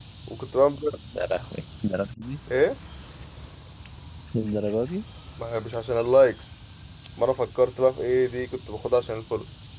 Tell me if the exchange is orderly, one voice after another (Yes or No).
Yes